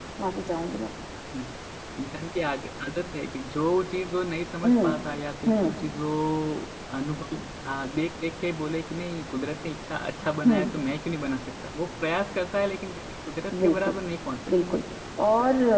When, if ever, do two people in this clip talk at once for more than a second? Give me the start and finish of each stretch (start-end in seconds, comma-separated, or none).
none